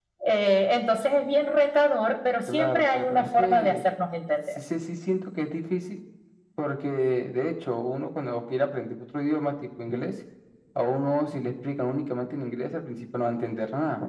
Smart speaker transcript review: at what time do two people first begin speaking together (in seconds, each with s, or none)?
2.5 s